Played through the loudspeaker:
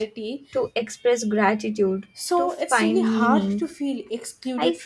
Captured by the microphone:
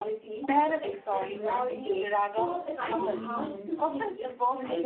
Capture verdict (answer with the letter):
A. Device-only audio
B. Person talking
B